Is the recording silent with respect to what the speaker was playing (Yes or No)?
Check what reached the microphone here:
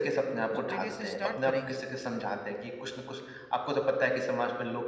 No